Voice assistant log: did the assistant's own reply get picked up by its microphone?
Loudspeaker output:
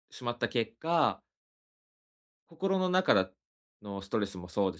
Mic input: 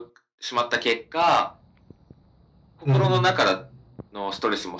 Yes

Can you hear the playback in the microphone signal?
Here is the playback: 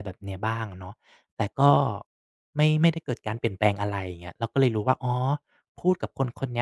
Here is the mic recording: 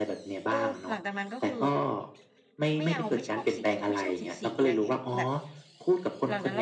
Yes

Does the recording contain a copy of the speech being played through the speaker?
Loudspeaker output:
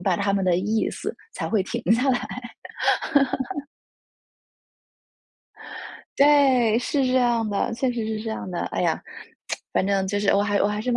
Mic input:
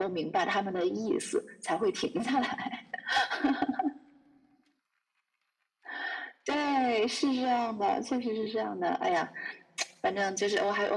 Yes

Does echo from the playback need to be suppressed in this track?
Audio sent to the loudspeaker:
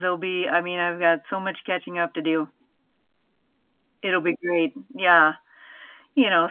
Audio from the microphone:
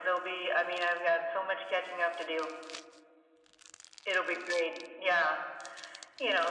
Yes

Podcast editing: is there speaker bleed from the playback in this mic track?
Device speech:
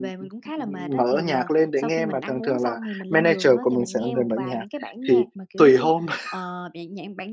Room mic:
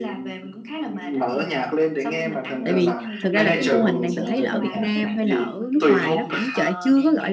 Yes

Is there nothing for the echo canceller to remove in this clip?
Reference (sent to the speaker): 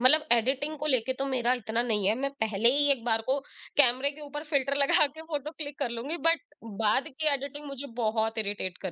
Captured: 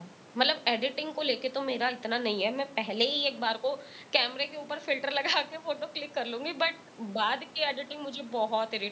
No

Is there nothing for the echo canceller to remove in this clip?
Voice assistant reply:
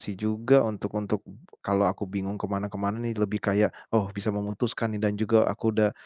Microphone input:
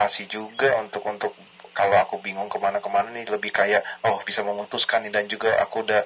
No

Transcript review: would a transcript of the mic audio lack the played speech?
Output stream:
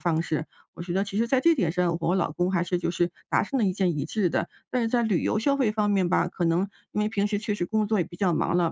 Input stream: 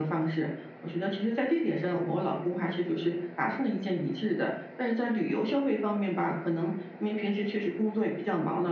No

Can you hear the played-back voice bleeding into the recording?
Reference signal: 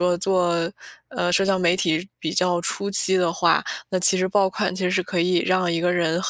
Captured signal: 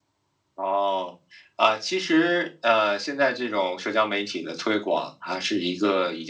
No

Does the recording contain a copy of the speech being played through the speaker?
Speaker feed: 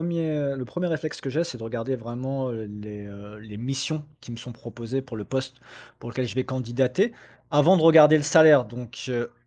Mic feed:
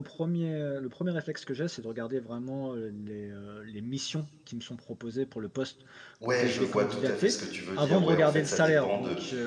Yes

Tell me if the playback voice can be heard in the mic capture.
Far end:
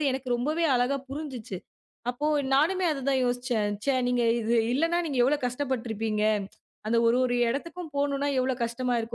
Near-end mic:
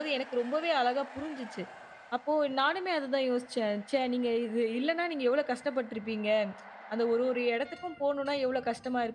Yes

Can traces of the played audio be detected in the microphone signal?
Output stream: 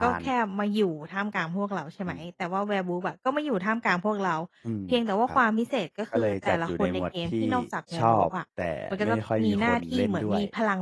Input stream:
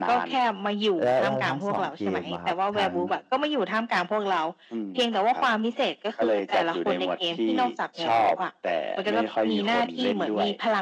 Yes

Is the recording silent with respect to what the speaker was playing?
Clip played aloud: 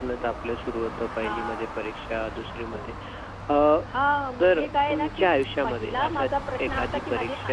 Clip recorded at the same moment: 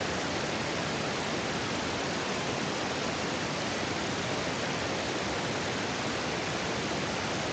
Yes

